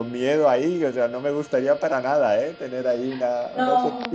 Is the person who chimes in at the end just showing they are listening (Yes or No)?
No